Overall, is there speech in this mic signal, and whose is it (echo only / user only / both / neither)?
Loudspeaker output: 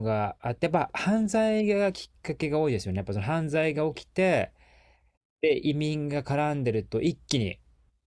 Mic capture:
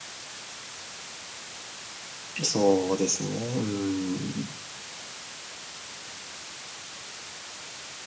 user only